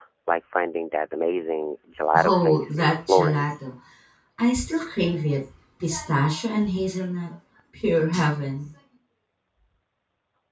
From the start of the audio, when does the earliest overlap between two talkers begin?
2 s

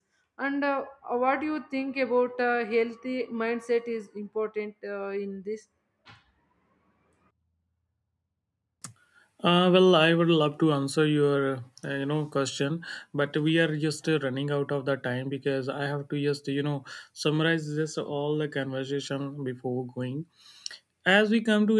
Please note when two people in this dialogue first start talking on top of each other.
none

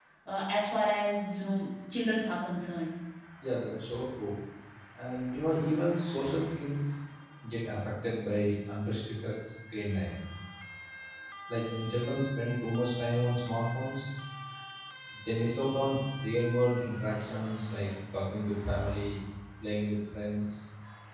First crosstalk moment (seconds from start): none

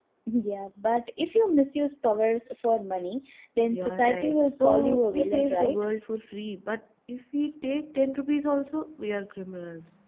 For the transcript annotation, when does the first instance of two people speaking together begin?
4 s

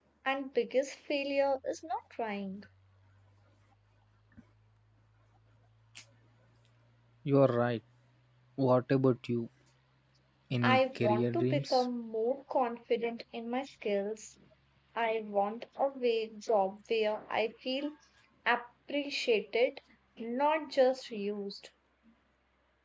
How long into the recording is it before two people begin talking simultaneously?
11 s

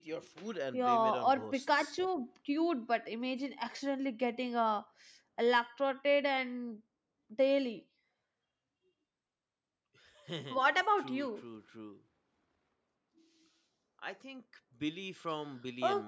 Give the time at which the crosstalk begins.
1 s

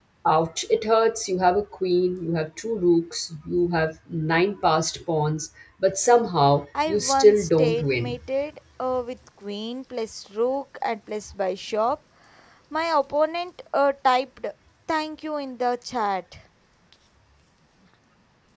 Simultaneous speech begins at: 7 s

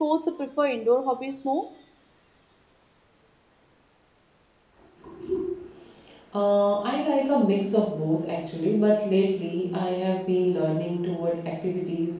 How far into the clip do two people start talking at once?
none

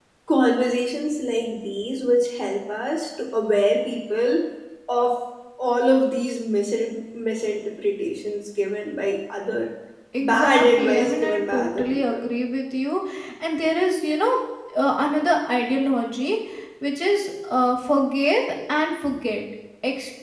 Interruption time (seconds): 10 s

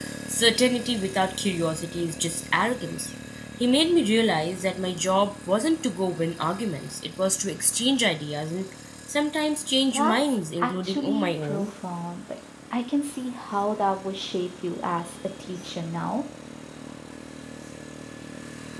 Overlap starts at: 10 s

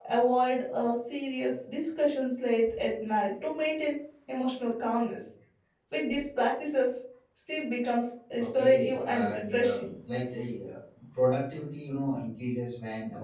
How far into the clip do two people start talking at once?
8 s

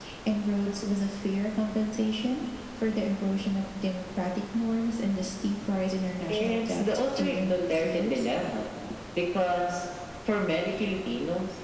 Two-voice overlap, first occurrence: 6 s

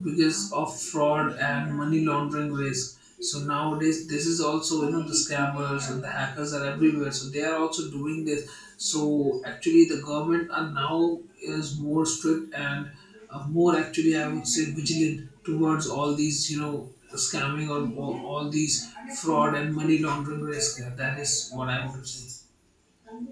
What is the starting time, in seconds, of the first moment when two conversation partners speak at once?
none

